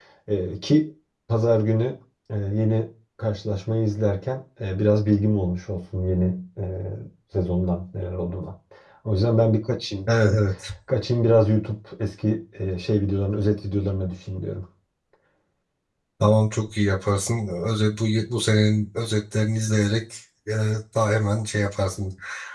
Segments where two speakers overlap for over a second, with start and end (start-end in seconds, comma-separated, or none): none